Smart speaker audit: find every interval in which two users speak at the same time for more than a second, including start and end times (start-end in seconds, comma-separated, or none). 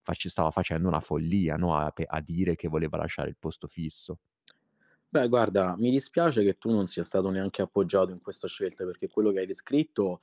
none